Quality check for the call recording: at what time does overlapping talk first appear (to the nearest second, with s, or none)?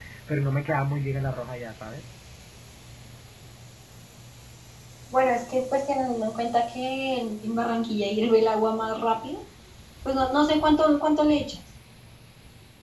none